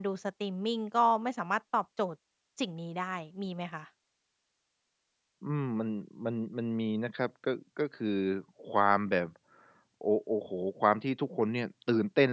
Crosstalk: none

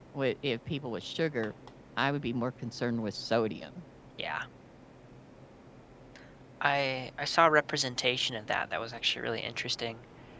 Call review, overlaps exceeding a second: none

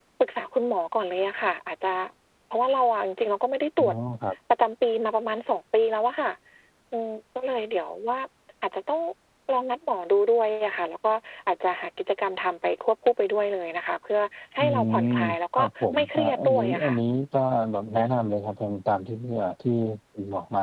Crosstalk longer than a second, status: present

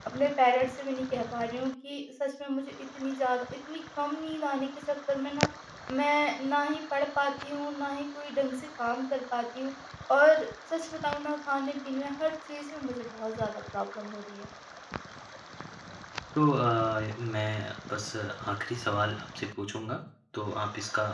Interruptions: none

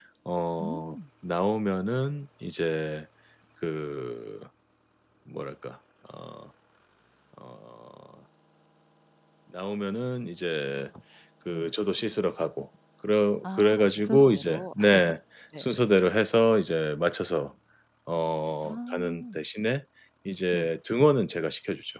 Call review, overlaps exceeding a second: present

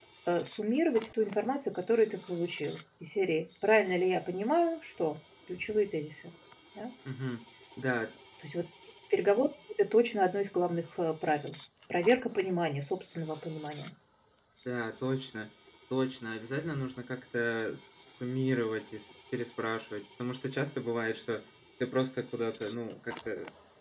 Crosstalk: none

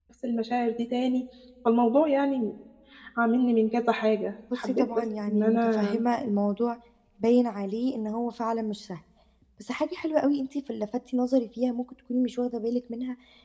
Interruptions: present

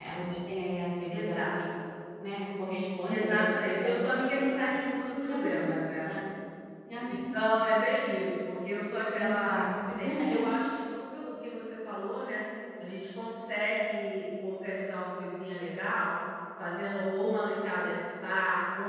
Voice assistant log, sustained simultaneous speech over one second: present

